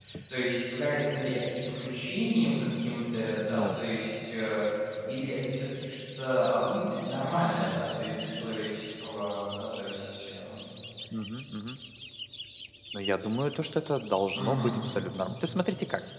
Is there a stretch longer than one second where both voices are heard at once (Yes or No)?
No